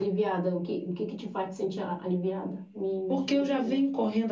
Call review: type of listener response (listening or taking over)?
taking over